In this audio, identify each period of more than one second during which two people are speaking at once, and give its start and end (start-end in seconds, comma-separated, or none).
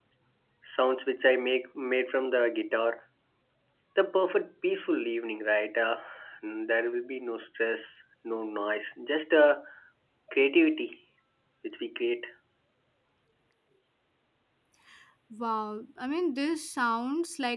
none